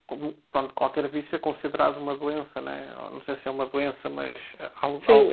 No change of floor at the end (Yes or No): No